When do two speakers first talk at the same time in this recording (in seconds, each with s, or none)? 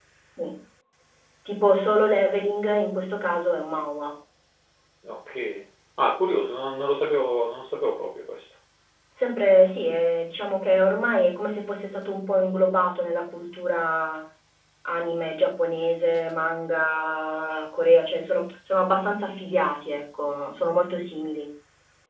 none